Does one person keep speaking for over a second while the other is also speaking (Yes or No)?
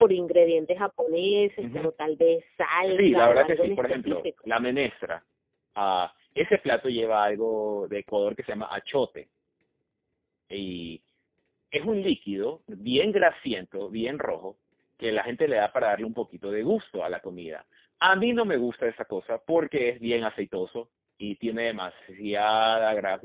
Yes